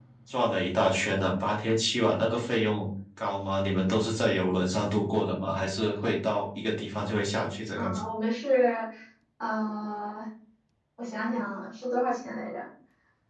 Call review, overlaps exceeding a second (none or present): none